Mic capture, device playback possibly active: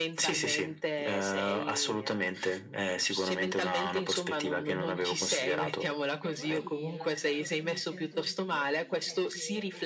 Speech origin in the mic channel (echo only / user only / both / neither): both